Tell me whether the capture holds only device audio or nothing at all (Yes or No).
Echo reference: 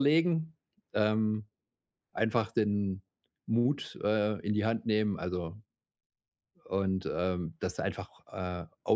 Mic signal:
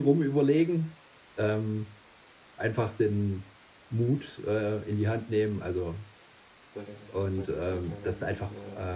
No